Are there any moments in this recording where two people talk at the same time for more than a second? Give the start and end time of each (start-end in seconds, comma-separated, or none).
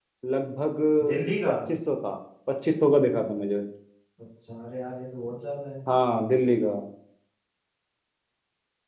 none